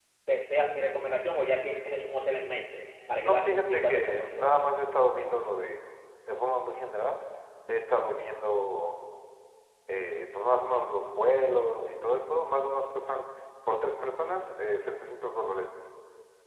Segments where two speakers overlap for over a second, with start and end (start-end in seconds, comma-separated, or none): 3.2-4.7